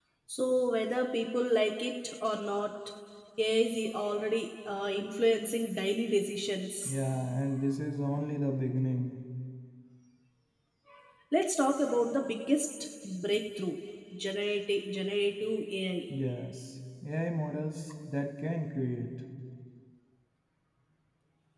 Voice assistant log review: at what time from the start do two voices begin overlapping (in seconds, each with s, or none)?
none